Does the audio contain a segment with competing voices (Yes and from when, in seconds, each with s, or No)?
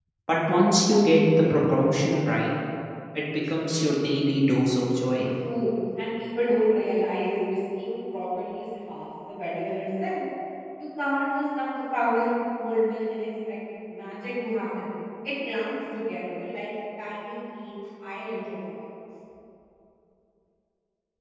No